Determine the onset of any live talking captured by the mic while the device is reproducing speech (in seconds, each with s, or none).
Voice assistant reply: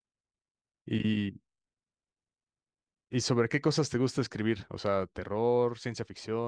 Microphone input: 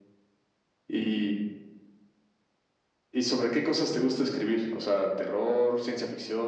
none